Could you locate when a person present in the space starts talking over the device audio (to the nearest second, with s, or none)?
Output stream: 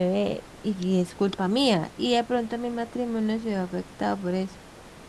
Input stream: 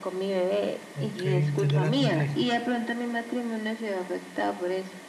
1 s